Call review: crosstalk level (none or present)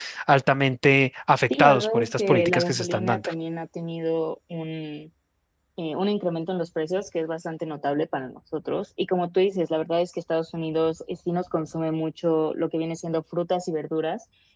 present